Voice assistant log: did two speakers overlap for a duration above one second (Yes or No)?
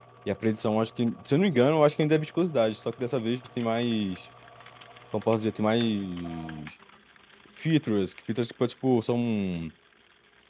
No